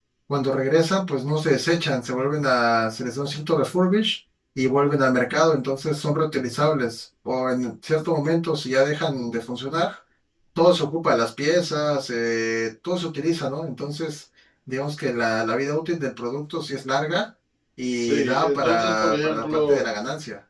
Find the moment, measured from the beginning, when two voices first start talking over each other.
18.0 s

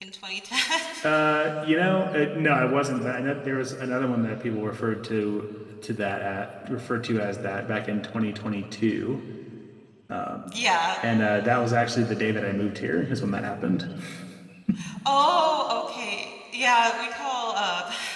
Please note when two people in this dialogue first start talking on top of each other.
none

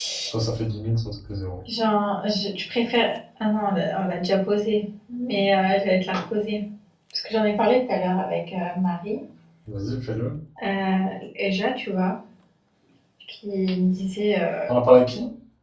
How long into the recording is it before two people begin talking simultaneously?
none

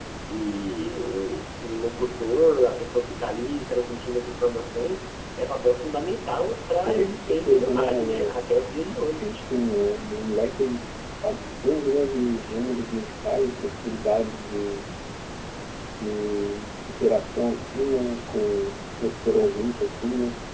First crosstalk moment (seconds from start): 6.8 s

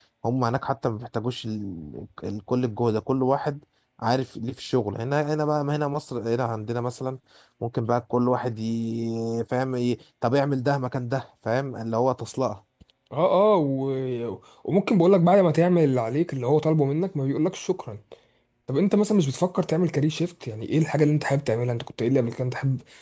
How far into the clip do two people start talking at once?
none

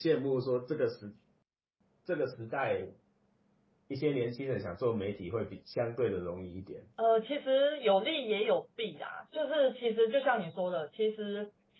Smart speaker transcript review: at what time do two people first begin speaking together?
none

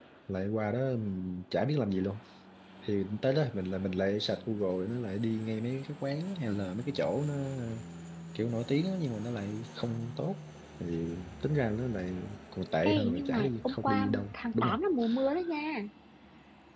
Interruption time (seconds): 12.8 s

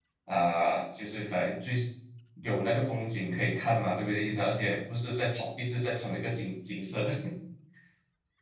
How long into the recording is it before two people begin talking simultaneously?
none

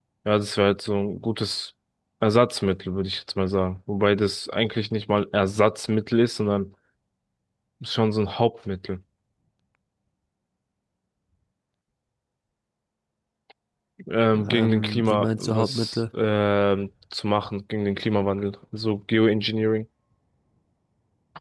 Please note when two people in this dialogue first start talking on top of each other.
14.5 s

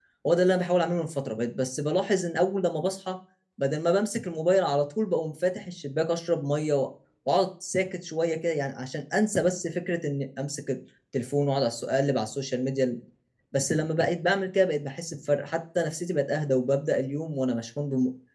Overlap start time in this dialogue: none

